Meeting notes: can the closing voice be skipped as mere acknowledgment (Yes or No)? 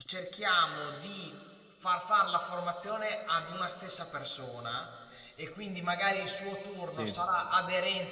Yes